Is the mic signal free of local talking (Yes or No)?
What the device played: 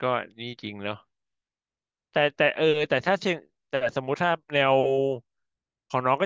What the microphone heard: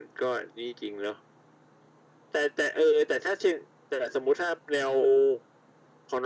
Yes